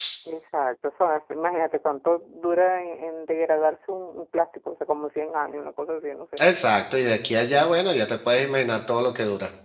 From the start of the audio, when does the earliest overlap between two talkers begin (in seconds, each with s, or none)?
none